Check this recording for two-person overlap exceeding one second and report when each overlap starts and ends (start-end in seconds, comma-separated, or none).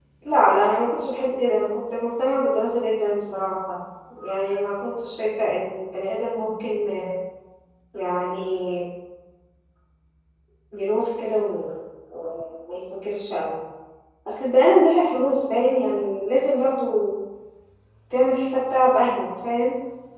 none